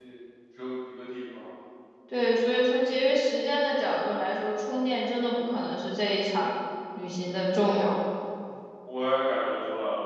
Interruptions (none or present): none